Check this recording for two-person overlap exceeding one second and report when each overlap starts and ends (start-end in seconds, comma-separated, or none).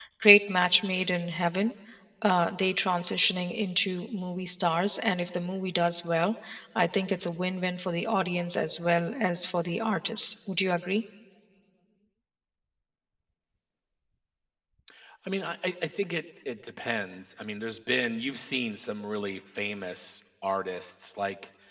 none